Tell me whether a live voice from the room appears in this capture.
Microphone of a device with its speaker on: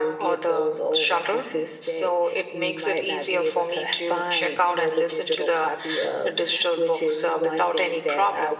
No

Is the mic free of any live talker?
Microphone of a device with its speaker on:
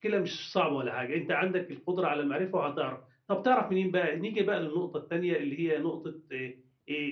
No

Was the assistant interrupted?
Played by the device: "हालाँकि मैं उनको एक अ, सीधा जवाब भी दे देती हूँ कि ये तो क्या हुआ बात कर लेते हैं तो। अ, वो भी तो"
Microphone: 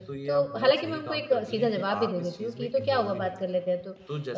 Yes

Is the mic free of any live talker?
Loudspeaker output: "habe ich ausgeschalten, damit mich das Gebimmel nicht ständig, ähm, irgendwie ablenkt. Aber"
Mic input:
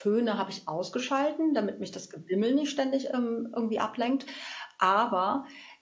Yes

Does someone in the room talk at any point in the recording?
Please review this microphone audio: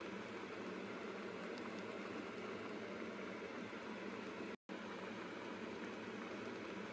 No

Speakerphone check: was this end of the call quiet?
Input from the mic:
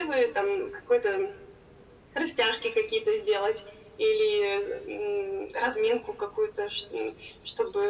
Yes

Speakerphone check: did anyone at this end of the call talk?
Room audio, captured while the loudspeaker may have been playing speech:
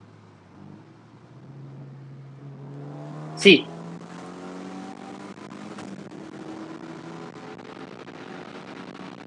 Yes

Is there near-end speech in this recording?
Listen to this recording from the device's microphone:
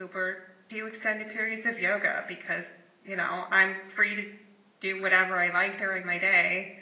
Yes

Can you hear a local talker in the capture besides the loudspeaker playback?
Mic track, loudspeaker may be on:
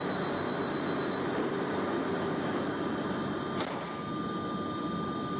No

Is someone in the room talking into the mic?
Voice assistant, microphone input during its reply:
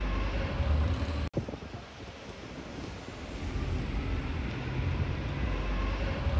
No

